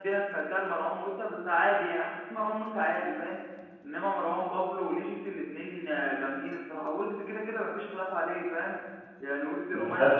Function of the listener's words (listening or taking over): listening